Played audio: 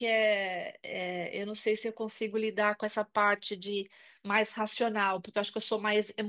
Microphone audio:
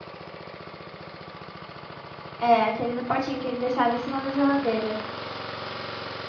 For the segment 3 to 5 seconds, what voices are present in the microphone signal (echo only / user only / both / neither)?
user only